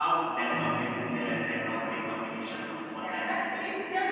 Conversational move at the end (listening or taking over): taking over